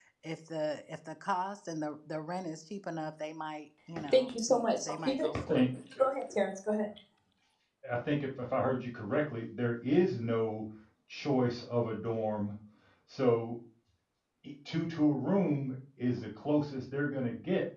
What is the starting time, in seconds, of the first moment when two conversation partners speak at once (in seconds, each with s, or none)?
4.0 s